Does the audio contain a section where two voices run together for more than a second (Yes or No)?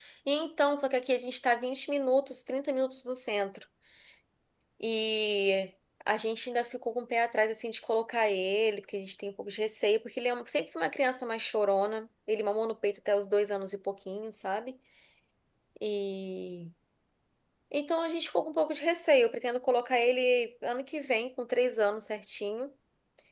No